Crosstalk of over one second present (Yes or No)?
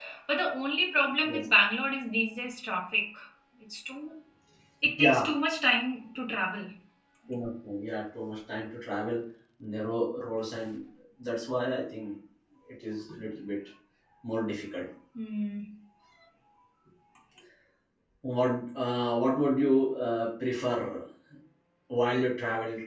No